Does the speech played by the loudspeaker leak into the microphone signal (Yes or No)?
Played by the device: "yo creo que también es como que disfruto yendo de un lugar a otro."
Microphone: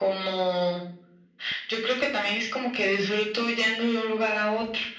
Yes